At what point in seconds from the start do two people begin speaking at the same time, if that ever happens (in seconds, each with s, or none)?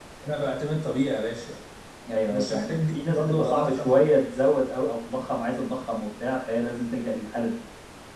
2.3 s